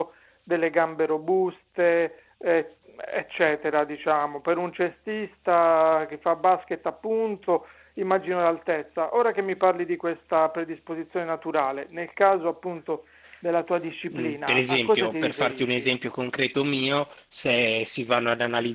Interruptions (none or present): present